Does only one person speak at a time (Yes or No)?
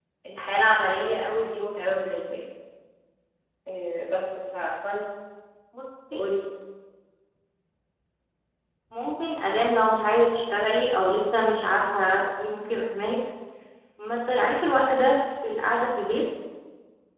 Yes